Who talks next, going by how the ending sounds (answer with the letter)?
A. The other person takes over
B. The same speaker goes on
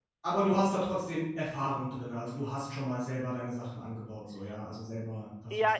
A